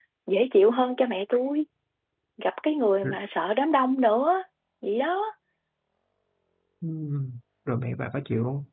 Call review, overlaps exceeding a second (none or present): none